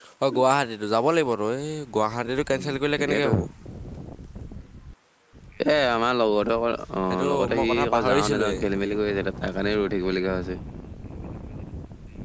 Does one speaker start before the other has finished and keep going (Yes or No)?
Yes